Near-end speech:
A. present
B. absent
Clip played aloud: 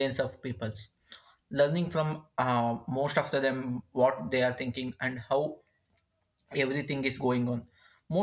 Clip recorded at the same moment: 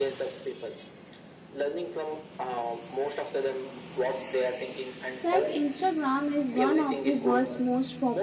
A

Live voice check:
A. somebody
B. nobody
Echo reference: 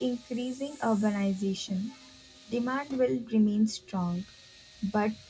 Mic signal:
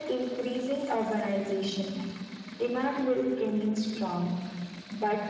B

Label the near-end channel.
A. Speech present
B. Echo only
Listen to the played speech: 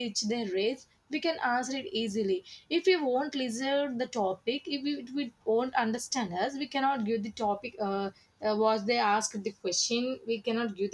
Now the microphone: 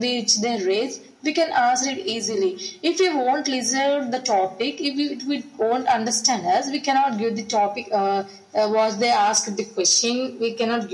B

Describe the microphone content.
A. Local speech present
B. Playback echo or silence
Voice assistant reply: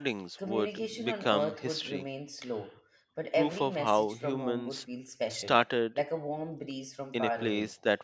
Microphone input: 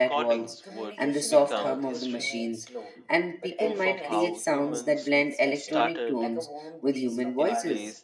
A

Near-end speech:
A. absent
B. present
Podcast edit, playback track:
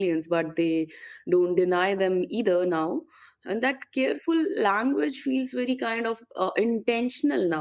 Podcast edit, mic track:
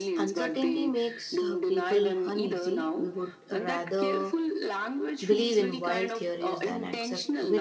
B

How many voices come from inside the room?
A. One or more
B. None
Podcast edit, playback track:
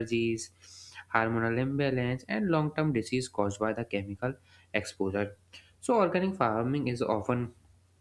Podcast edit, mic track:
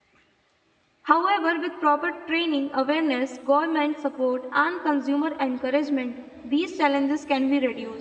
A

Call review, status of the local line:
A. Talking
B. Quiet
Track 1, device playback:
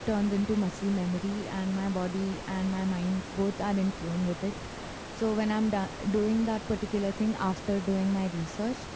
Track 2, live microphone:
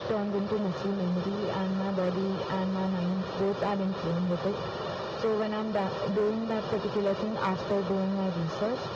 B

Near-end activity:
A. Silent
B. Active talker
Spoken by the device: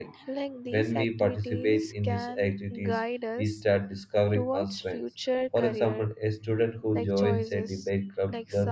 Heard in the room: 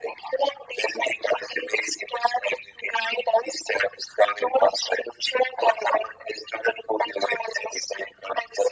A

